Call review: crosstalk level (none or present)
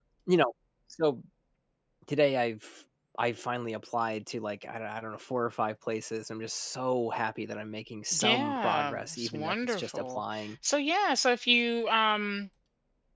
present